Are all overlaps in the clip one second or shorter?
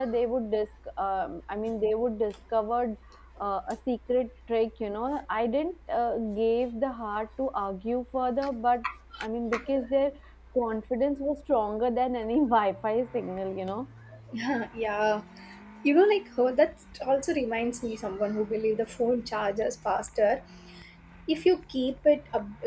Yes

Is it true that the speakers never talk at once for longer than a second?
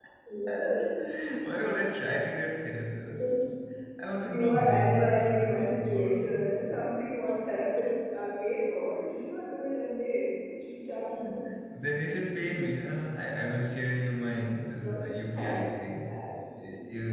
No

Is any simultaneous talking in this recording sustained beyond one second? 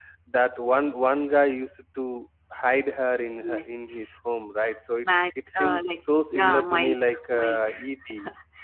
Yes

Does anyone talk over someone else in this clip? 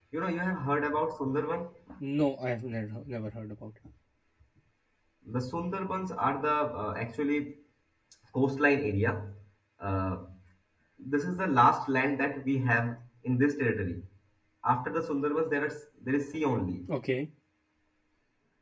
No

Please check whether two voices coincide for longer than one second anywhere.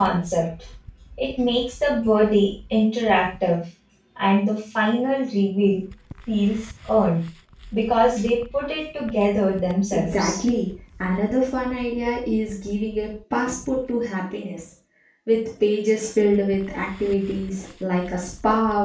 No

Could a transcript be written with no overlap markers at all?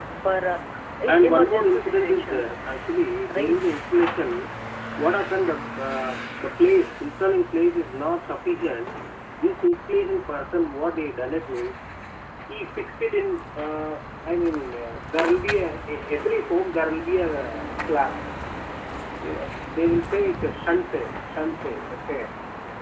No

